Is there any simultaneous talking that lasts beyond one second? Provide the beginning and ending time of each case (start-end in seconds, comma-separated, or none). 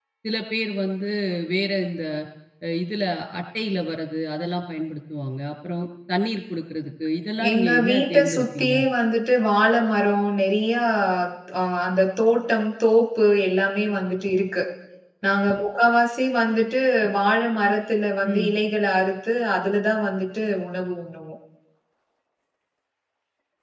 7.5-8.7